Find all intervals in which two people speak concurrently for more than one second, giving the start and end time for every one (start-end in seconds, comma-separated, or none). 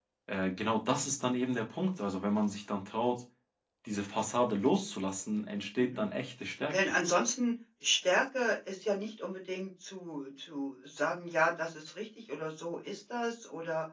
none